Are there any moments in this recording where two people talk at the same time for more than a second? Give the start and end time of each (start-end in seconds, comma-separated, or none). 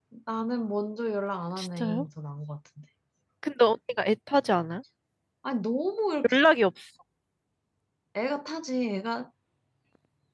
none